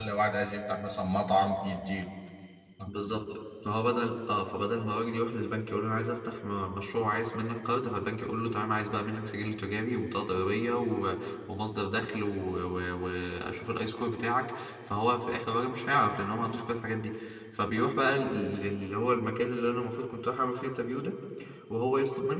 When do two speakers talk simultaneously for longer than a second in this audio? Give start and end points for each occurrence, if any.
none

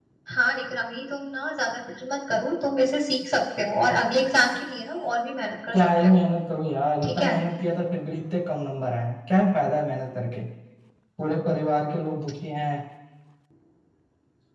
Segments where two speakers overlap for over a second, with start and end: none

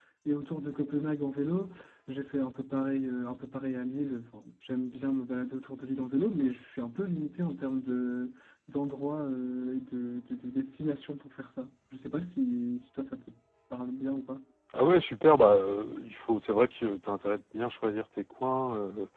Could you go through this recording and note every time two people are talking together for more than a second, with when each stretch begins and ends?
none

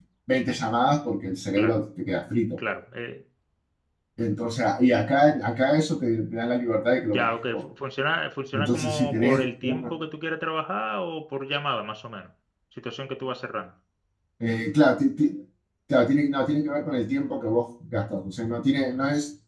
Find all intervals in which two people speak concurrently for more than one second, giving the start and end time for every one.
8.5-9.9

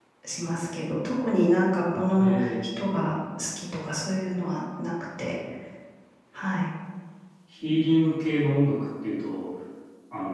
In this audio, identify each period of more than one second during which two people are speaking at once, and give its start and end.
none

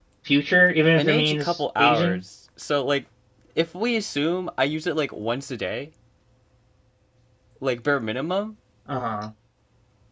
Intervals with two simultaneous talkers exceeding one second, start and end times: 1.0-2.2

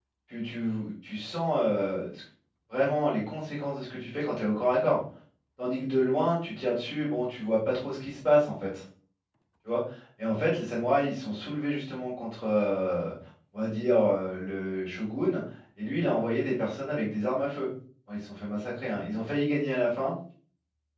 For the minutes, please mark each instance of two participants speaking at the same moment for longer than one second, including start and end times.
none

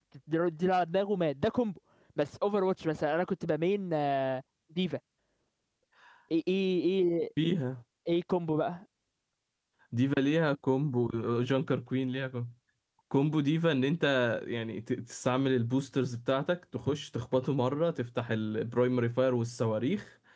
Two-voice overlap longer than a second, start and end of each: none

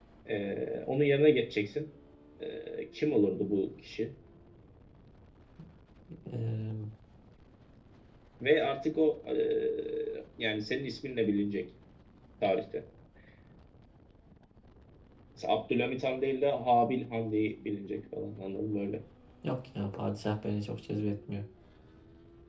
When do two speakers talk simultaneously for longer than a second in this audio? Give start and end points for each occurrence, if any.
none

